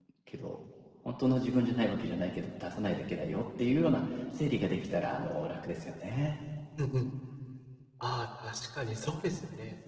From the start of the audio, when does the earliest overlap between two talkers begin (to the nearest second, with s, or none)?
none